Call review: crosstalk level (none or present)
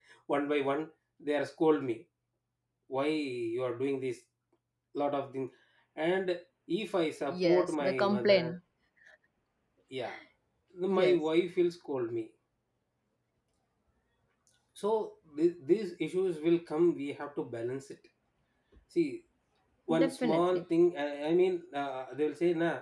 present